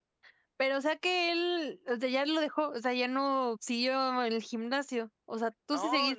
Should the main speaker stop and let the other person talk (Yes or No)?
Yes